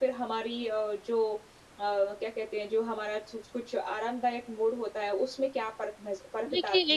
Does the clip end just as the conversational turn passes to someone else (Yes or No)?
Yes